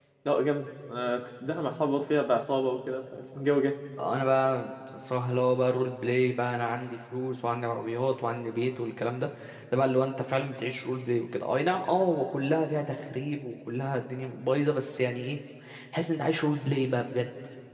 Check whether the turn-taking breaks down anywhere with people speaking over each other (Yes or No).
No